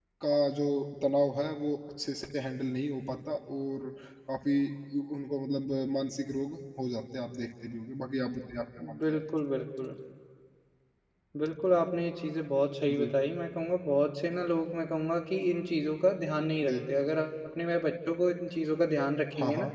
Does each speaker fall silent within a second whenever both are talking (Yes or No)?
Yes